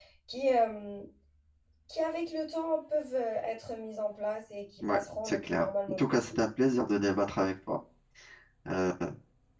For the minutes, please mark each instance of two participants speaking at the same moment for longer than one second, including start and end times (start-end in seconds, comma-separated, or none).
4.8-6.3